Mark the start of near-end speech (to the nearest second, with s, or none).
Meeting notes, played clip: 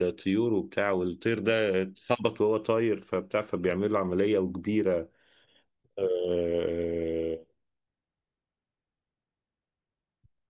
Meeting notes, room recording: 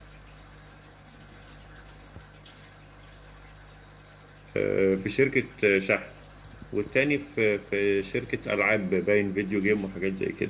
5 s